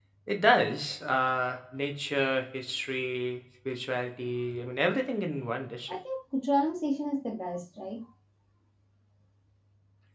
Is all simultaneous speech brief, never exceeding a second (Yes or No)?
Yes